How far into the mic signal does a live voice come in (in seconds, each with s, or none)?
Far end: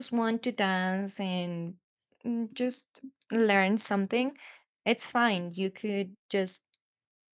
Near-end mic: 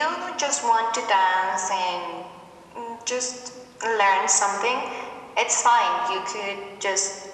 none